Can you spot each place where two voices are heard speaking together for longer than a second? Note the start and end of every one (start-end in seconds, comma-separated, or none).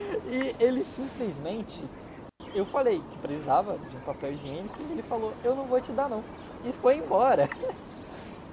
none